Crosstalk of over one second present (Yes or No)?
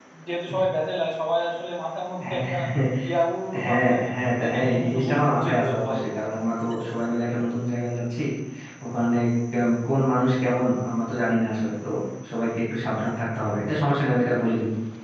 Yes